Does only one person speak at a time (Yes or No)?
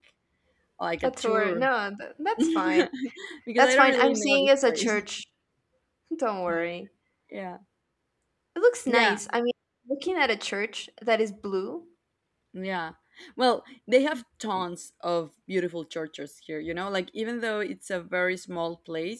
No